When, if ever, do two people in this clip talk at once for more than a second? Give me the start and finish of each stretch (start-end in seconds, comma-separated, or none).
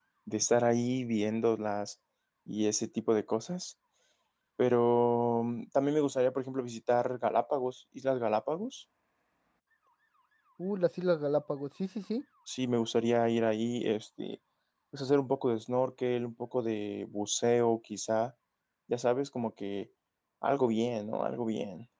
none